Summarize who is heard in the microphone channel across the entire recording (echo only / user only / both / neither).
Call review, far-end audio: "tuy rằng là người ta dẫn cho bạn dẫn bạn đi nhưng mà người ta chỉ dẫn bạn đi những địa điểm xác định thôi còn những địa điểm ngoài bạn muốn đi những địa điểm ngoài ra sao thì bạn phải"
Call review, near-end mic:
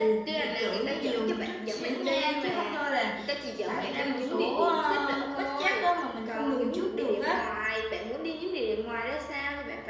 both